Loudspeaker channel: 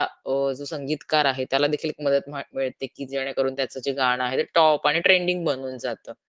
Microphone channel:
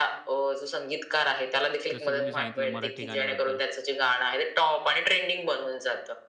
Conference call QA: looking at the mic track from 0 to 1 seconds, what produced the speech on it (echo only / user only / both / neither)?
echo only